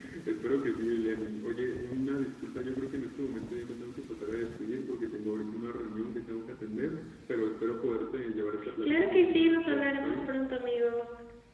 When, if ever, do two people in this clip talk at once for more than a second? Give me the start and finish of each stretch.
8.8-10.4

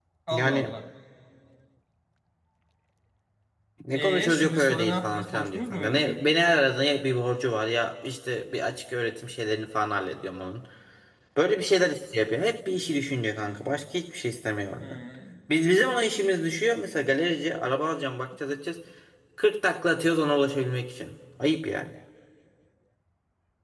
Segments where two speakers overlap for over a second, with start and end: 3.9-6.2

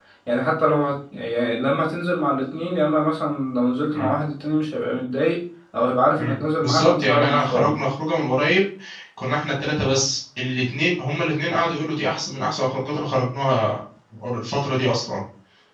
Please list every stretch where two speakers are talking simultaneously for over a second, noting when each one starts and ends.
6.2-7.8

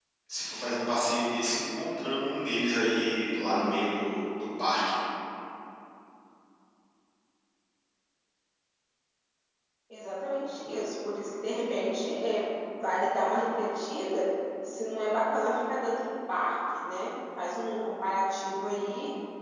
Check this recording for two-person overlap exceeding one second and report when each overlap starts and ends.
none

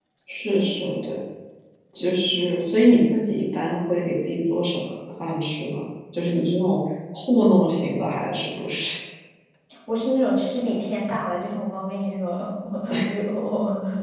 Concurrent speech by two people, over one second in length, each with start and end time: none

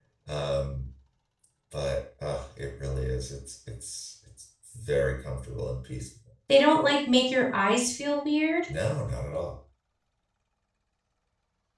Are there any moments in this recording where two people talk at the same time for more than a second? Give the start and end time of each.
none

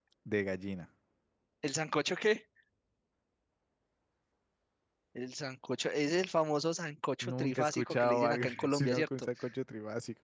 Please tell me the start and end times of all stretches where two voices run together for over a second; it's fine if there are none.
7.2-9.3

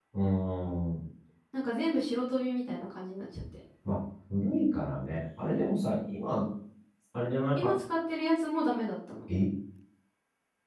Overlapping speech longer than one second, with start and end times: none

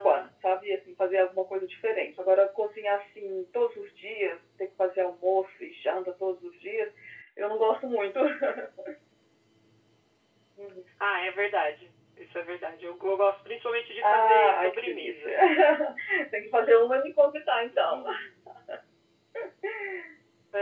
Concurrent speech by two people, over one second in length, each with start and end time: 14.0-15.4

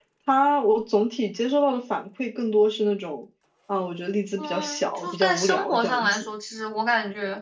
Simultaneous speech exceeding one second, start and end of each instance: 4.4-6.3

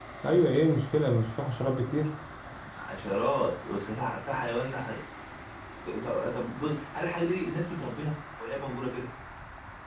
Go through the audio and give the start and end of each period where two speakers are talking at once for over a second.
none

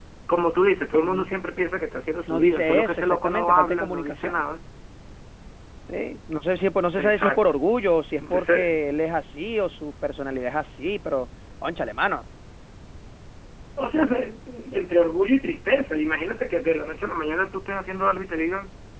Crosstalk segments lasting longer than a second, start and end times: 2.3-4.4

